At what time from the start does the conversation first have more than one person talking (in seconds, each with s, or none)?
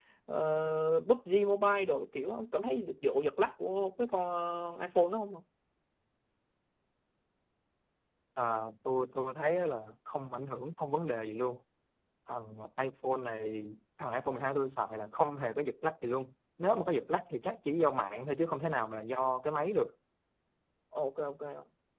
none